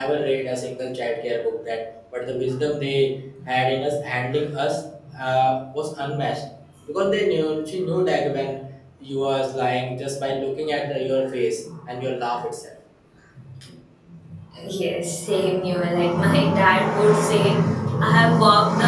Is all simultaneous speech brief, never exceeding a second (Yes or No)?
Yes